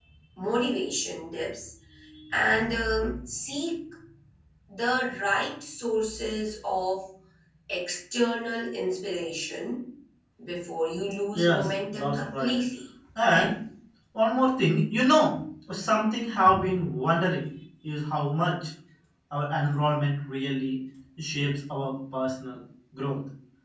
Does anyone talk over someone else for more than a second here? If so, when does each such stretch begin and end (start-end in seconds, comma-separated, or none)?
11.3-12.6